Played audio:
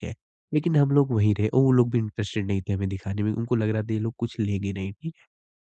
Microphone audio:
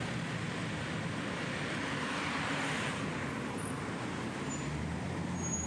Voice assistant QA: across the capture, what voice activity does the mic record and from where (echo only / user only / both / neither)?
neither